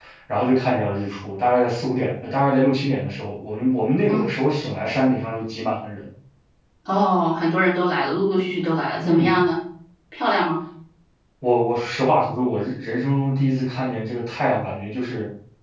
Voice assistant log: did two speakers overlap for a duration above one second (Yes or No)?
No